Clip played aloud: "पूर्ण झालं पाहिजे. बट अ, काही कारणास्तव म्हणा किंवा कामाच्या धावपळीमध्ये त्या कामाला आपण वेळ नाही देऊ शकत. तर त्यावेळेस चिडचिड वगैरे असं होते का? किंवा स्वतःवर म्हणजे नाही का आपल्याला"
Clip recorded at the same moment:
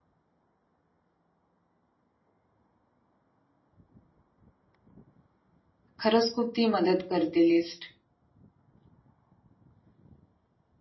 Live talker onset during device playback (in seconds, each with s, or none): 6.0 s